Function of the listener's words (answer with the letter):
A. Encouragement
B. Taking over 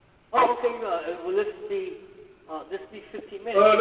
B